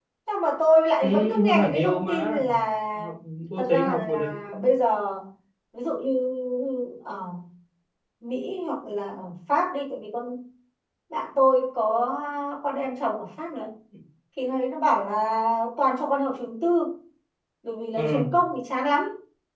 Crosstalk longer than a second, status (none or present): present